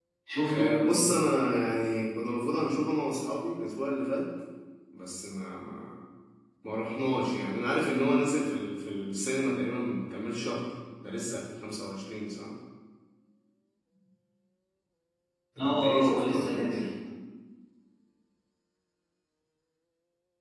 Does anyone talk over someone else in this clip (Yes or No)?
Yes